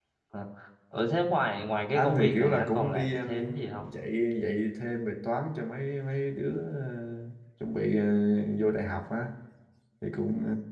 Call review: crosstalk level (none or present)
present